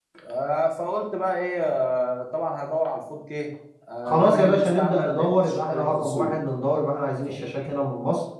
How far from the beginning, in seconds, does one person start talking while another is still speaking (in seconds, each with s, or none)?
4.0 s